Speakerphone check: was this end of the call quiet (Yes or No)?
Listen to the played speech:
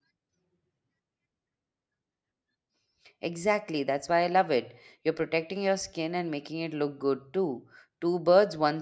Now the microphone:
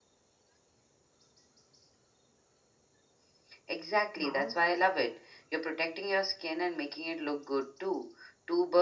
No